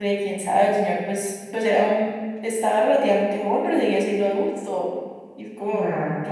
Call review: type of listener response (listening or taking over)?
taking over